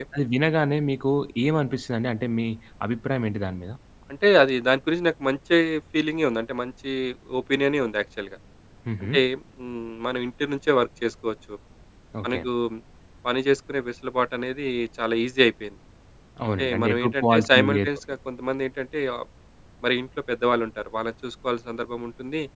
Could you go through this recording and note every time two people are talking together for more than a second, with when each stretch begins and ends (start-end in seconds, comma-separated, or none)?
16.6-17.9